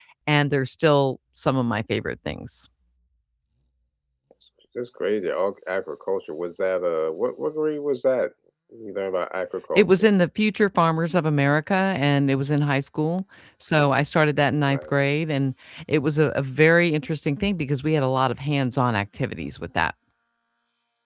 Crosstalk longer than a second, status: none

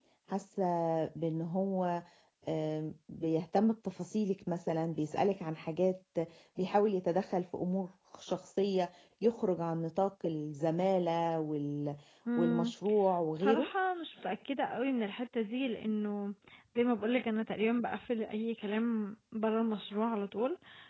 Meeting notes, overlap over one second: none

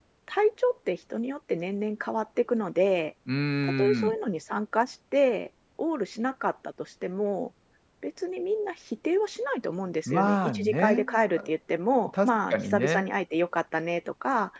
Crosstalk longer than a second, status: present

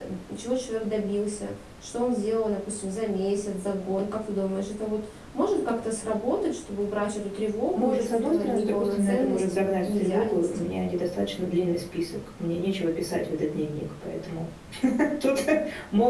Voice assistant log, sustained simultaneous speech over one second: present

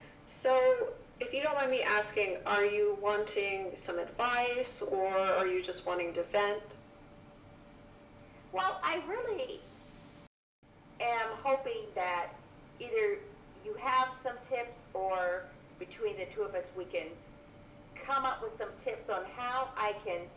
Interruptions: none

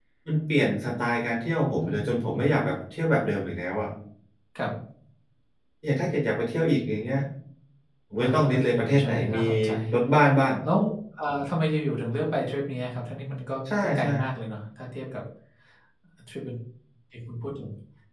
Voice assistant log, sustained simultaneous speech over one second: present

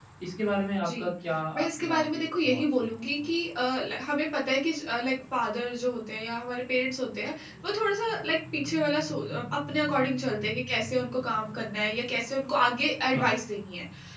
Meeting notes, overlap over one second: present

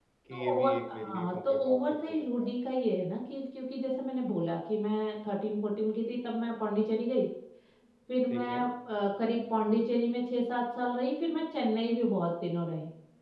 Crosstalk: present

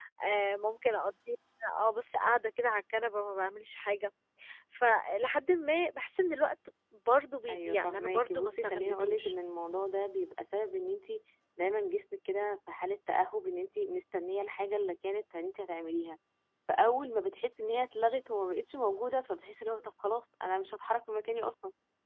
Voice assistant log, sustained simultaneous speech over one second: present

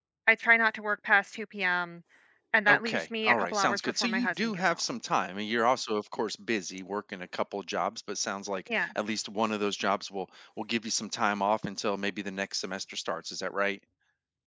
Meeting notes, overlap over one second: present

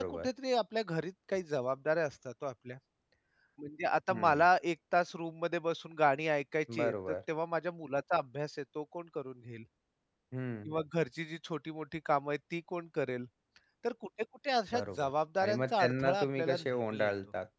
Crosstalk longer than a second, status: present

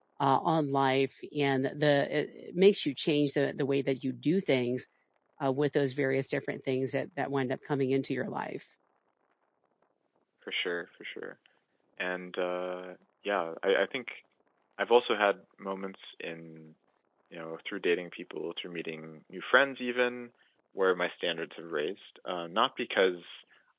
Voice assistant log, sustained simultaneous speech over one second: none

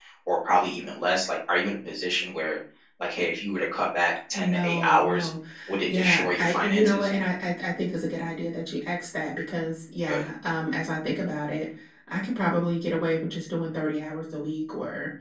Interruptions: present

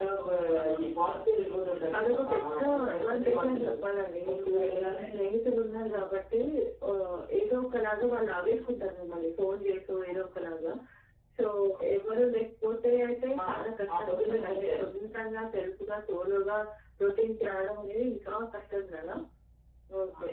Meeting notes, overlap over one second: present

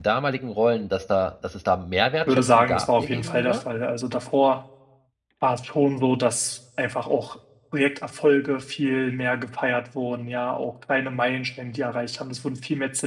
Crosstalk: present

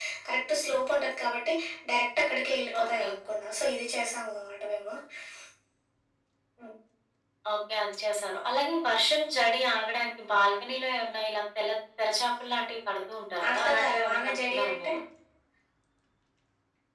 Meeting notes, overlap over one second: present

